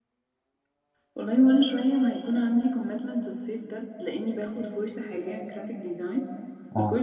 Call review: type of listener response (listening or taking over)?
listening